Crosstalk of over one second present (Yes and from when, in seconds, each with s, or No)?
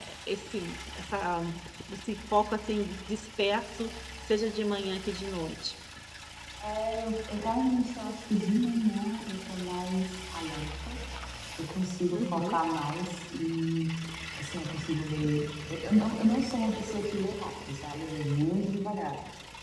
No